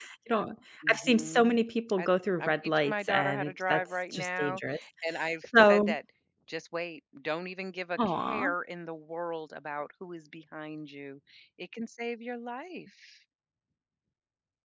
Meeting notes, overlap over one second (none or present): present